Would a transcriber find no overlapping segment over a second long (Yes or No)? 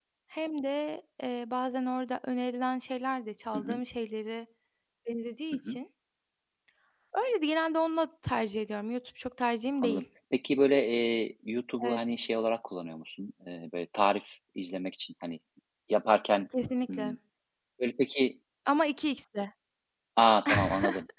Yes